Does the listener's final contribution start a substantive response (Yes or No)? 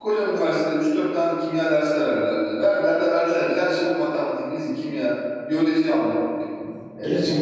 Yes